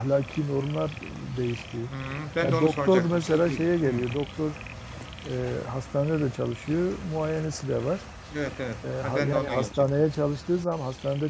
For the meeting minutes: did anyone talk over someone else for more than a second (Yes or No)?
Yes